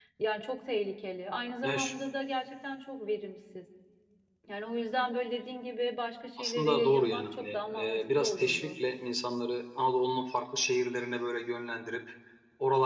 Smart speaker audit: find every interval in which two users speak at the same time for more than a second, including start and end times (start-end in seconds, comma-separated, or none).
6.4-8.7